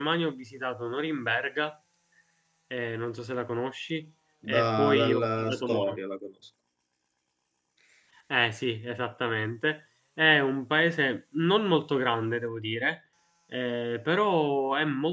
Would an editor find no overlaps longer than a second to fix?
No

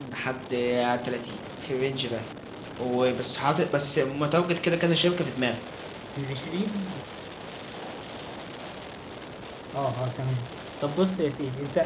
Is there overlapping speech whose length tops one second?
No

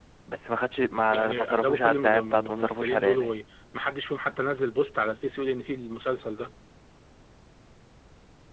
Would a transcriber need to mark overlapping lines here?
Yes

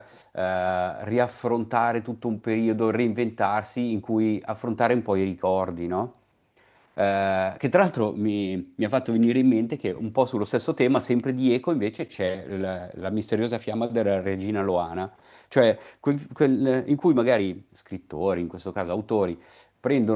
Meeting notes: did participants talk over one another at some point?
No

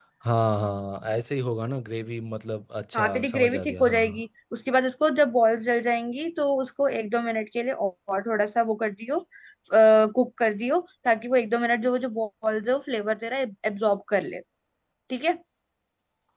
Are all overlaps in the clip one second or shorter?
No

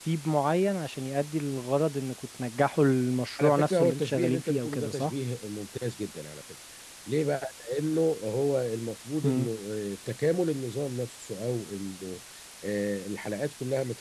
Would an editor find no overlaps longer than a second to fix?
No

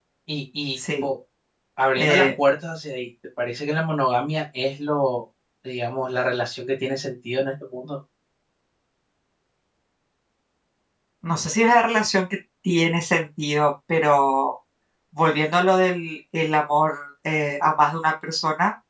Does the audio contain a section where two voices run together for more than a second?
No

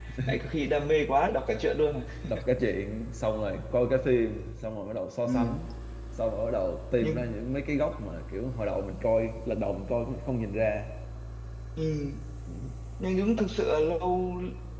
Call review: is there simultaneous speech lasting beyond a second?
No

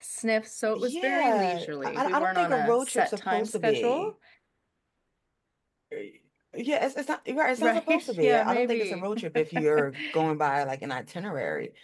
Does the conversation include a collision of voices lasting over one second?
Yes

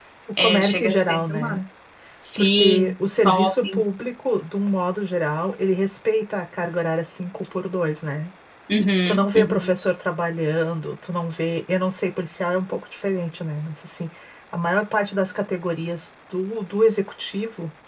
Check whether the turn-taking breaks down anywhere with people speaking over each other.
Yes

